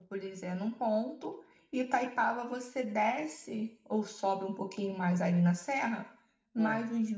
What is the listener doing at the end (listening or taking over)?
listening